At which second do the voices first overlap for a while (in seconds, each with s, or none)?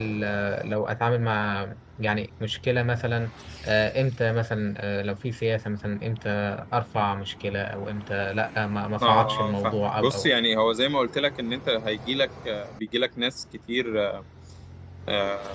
9.0 s